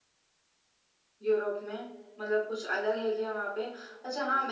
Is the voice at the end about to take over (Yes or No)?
No